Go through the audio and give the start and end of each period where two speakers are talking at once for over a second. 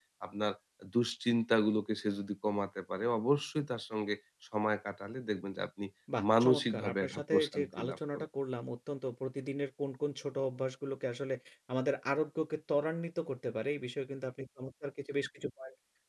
6.4-8.3

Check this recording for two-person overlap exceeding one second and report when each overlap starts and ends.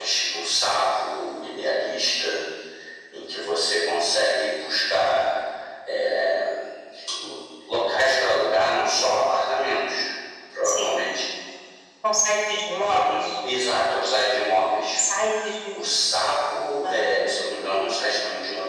none

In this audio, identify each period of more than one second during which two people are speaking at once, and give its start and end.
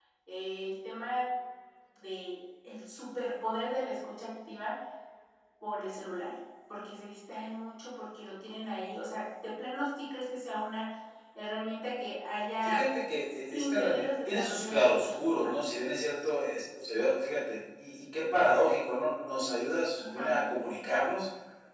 13.5-15.5

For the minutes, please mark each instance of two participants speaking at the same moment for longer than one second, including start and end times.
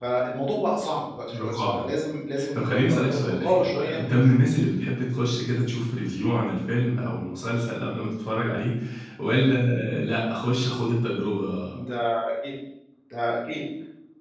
2.5-4.3

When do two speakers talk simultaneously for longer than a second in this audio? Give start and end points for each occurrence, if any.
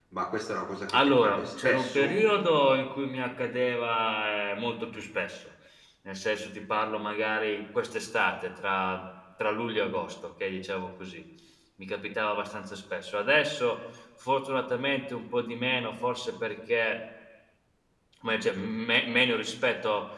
0.9-2.2

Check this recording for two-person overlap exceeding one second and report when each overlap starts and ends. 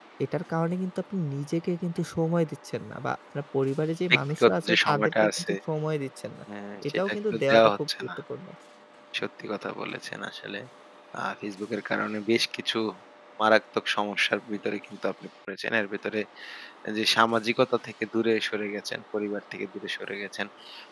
4.1-5.5, 6.9-8.1

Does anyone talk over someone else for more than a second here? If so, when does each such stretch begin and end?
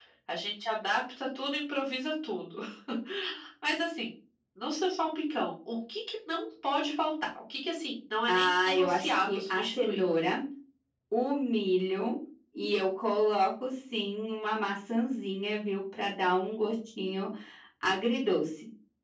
8.3-10.0

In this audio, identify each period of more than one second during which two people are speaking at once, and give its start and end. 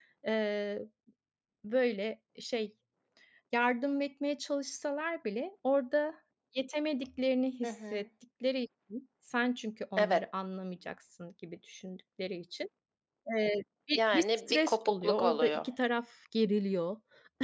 13.9-15.7

